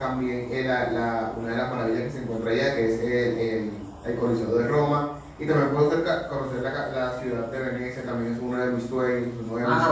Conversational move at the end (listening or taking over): taking over